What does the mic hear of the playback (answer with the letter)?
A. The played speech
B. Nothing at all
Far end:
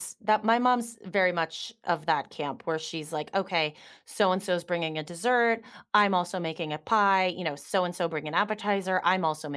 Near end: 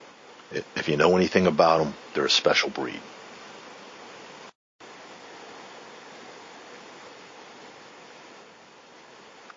B